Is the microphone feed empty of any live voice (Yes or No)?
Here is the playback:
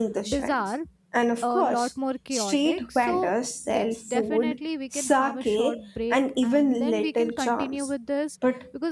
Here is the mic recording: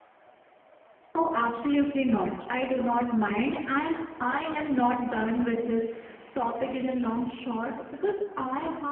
No